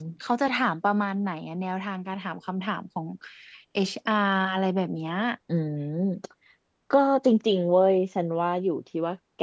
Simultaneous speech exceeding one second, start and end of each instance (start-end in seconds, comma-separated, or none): none